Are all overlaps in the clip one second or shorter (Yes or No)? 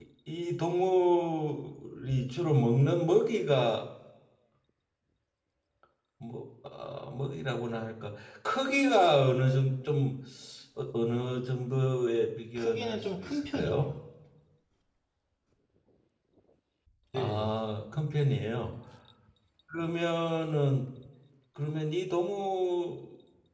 No